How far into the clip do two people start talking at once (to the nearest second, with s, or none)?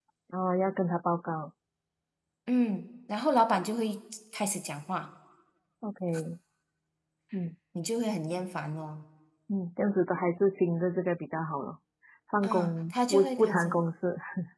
12 s